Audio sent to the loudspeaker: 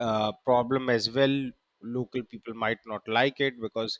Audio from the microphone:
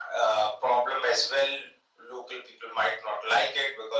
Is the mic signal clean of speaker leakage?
No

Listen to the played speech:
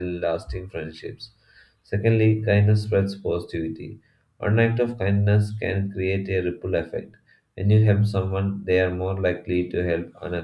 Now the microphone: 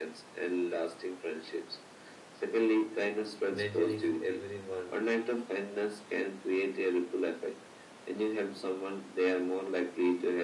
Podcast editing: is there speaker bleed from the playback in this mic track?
Yes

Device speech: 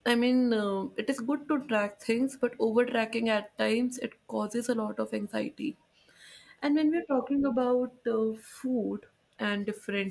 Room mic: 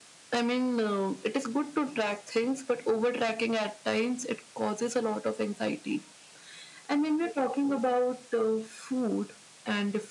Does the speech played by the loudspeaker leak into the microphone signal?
Yes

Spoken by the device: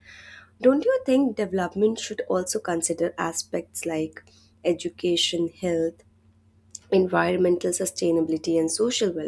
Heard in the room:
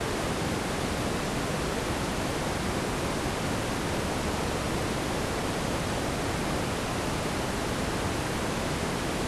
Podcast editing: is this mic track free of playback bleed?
Yes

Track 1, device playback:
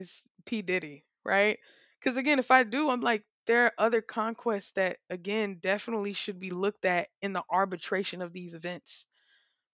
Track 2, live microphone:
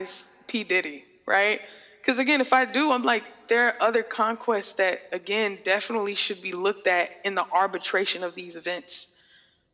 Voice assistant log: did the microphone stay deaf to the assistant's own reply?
No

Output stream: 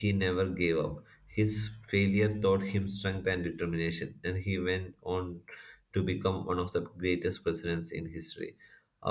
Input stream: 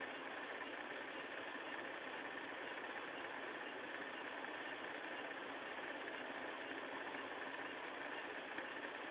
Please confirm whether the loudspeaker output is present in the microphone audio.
No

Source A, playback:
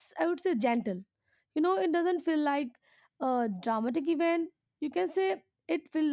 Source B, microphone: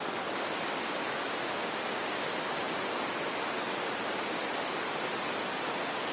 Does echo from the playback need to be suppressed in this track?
No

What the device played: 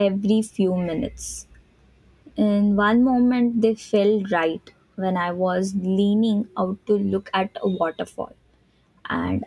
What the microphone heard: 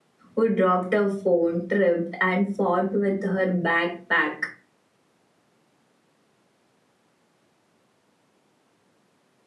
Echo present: No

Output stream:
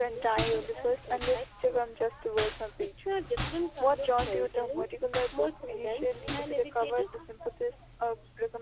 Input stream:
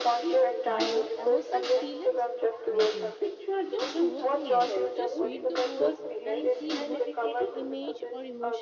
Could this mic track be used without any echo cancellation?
No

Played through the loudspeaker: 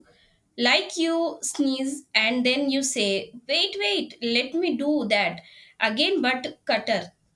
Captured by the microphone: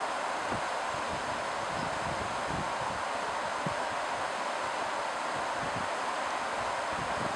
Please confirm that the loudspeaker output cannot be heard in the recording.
Yes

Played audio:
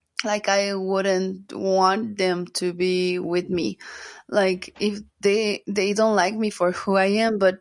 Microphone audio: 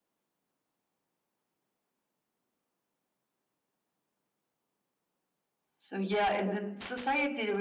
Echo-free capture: Yes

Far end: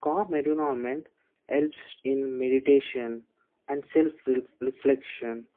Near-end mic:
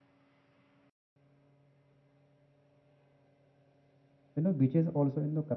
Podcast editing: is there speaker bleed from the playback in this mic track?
No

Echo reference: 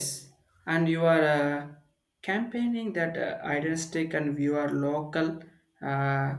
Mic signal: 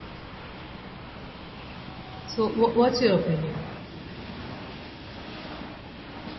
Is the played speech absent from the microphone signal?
Yes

